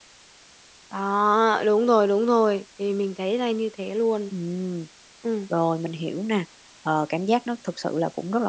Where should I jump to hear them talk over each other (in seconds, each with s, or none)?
none